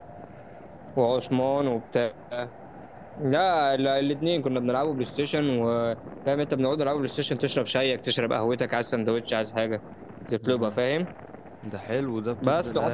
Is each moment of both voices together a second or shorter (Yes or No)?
Yes